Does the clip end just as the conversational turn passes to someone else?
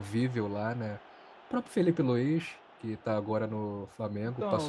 Yes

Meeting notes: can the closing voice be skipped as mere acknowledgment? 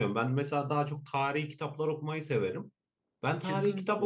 Yes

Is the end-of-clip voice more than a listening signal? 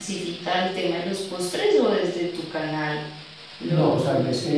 Yes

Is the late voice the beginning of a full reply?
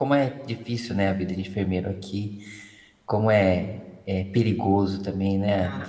Yes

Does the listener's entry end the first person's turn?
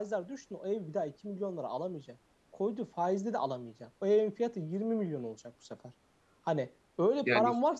No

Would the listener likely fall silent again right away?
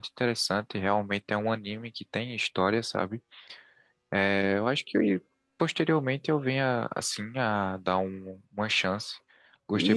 No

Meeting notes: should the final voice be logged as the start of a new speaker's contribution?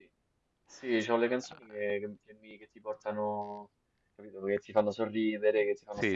Yes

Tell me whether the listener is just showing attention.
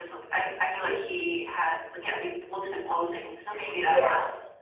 No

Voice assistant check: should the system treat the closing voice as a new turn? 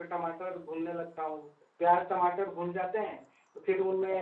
No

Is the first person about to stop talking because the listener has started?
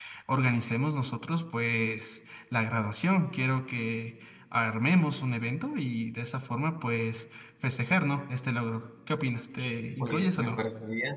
Yes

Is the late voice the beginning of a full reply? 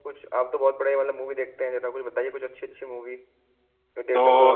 Yes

